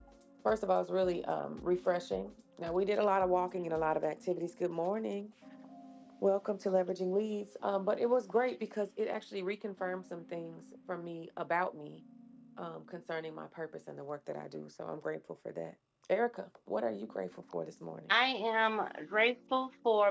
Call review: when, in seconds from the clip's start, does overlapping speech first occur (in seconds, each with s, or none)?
none